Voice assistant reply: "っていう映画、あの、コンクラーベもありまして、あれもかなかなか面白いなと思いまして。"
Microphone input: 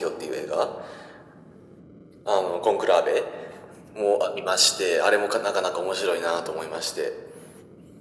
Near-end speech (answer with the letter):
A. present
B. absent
B